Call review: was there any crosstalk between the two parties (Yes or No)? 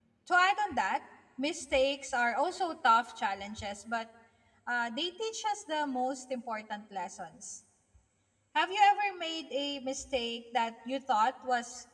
No